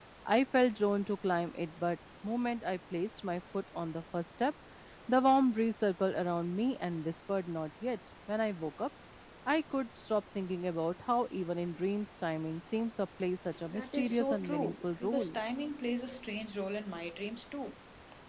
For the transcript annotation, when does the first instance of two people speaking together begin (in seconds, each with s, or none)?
13.6 s